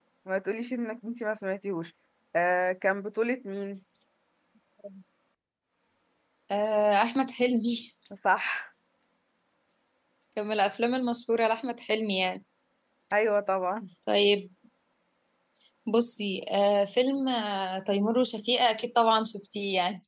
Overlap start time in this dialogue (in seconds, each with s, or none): none